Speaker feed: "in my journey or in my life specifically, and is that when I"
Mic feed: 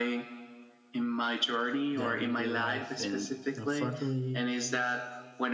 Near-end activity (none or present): present